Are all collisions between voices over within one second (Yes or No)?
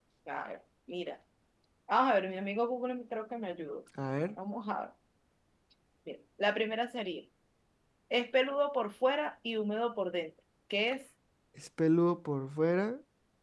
Yes